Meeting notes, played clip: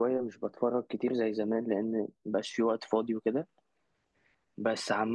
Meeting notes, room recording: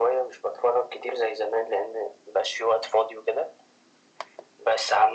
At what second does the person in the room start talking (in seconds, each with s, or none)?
none